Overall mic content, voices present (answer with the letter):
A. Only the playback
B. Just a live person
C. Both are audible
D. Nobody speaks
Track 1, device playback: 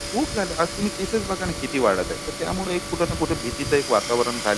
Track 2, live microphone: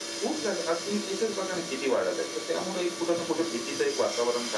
A